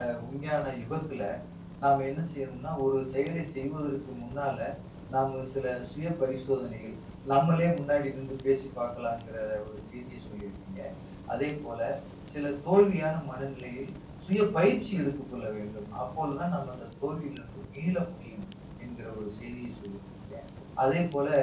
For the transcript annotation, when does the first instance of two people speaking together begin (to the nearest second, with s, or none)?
none